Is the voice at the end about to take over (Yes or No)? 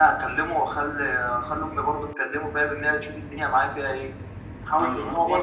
No